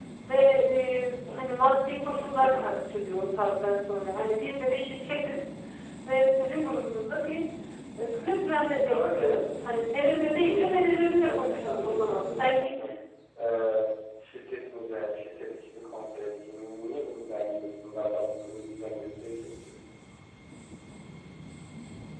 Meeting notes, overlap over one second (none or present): present